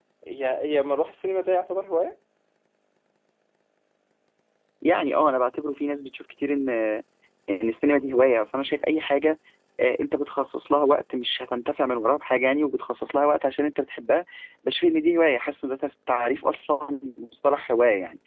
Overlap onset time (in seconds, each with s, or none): none